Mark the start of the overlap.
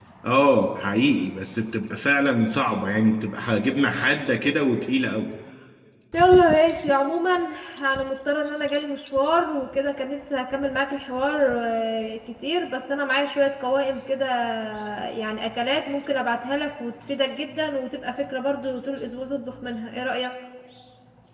none

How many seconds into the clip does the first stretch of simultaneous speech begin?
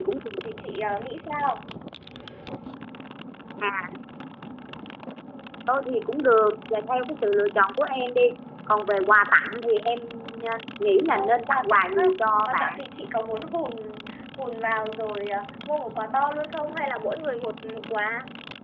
11.1 s

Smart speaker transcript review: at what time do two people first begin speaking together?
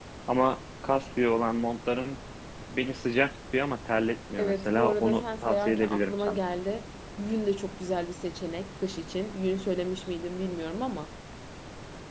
4.4 s

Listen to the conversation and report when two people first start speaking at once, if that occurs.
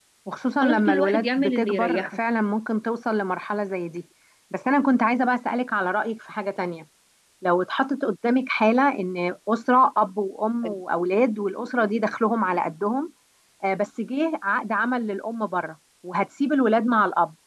0.6 s

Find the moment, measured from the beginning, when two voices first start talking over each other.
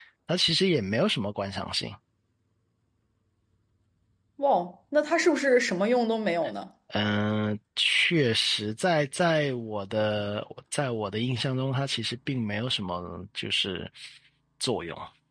none

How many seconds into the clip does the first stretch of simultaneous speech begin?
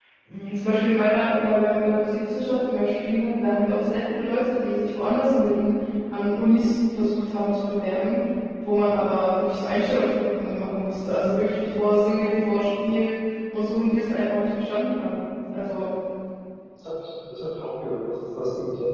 none

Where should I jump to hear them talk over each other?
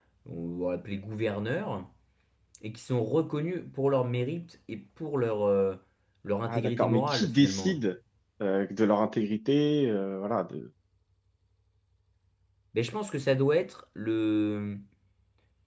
6.5 s

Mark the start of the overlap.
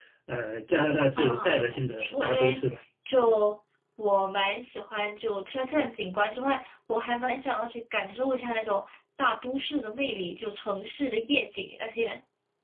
1.1 s

